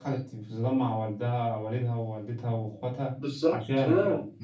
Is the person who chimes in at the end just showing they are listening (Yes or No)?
No